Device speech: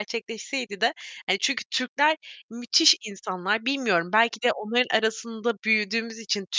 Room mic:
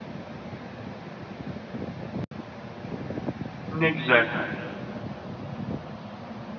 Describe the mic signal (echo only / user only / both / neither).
user only